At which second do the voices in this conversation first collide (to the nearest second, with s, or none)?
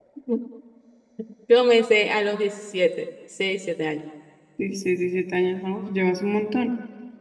none